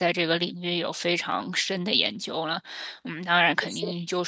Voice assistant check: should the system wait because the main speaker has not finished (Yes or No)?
Yes